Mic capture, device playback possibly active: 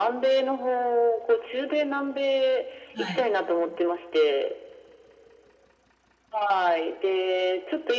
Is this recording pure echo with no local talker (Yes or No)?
No